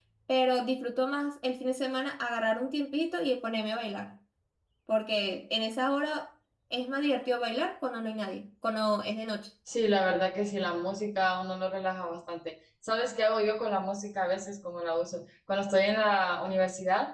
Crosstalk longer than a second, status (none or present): none